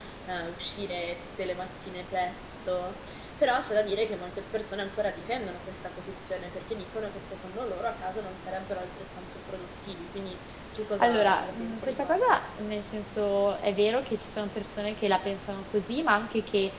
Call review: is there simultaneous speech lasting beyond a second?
Yes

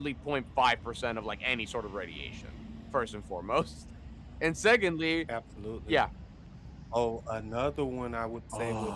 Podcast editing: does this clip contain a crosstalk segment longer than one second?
No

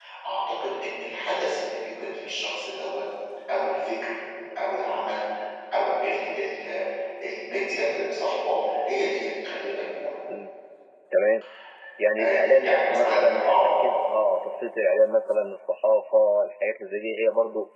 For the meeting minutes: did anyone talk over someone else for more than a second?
Yes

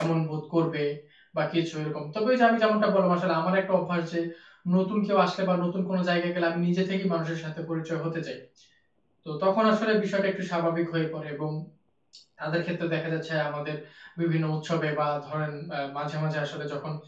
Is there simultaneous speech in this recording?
No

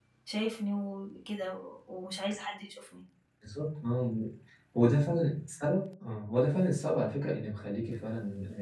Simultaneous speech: No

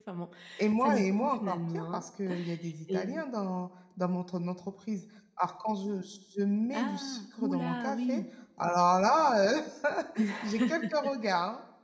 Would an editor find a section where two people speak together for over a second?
Yes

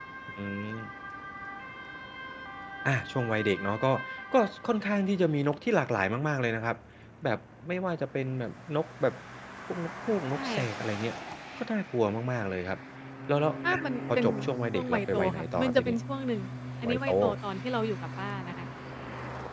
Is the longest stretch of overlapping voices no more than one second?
No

